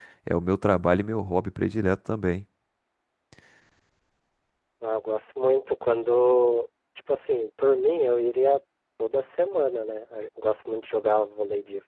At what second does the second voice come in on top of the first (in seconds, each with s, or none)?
none